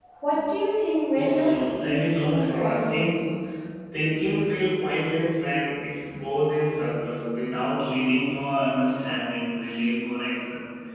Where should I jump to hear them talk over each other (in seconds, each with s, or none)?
1.2 s